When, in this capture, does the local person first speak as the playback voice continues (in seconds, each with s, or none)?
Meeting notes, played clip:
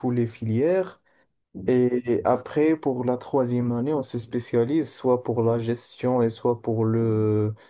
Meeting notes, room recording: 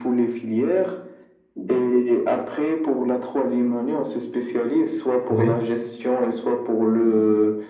5.3 s